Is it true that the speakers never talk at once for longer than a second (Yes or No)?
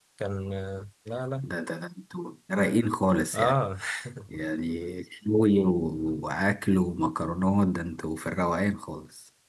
Yes